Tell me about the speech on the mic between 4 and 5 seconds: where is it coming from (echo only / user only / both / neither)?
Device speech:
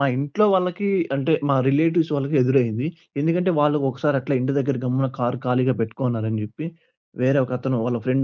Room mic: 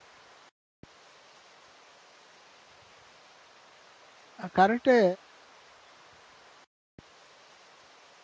user only